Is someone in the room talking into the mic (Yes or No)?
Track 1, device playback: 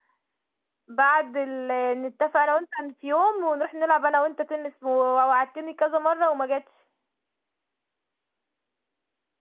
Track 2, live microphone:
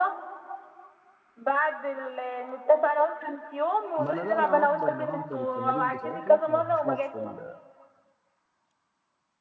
Yes